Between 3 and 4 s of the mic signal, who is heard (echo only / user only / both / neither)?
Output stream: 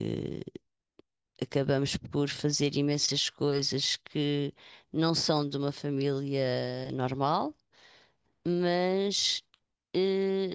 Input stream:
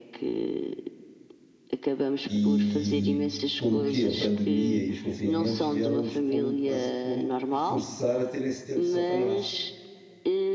both